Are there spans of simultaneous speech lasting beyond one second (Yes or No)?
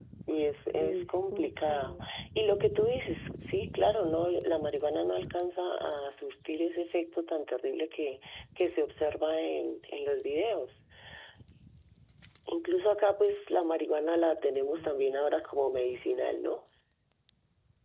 Yes